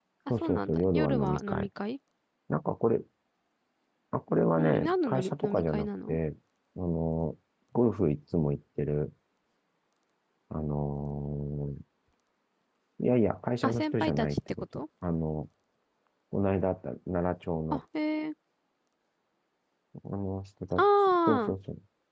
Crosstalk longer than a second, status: present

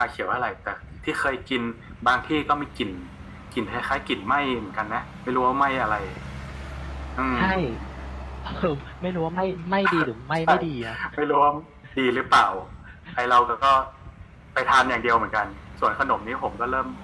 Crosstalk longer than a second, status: none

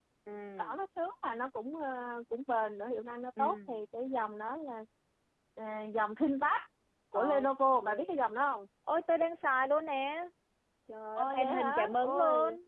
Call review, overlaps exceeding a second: present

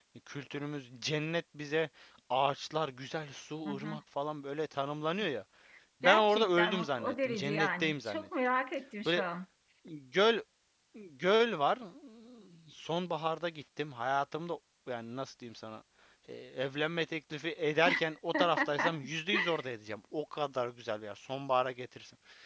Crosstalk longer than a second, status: present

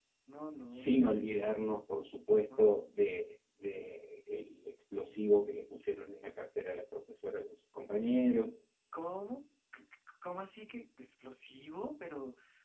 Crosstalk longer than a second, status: none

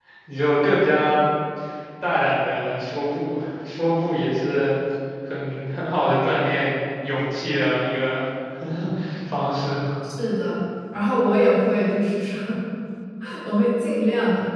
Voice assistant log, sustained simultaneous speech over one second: none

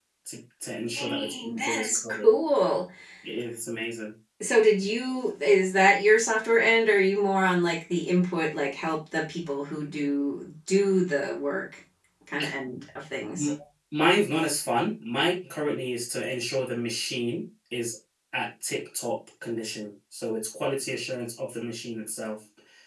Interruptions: present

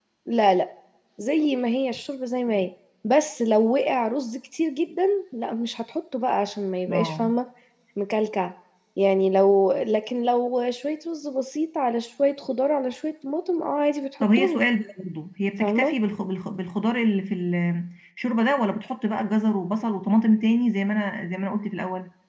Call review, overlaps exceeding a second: none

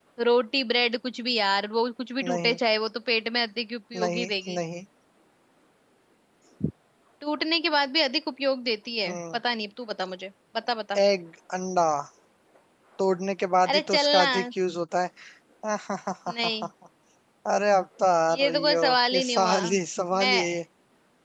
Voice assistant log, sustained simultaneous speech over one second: present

